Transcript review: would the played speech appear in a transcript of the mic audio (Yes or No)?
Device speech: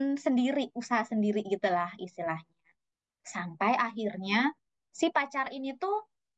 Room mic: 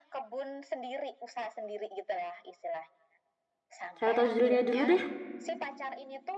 Yes